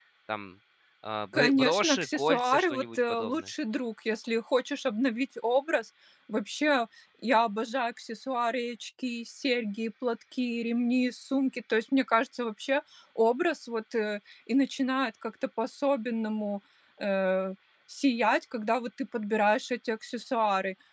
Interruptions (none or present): present